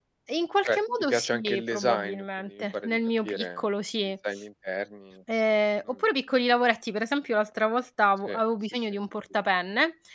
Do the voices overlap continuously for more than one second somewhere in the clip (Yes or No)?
Yes